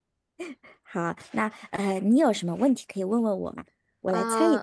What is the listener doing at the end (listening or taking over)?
taking over